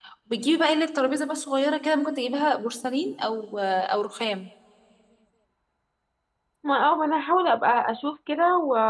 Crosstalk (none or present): none